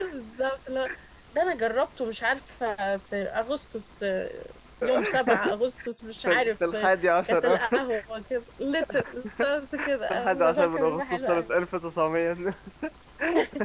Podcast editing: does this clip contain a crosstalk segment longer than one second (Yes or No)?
Yes